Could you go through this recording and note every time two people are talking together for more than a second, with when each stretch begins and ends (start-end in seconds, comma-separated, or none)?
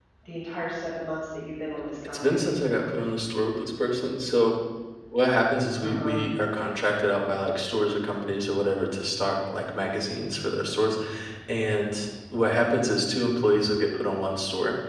none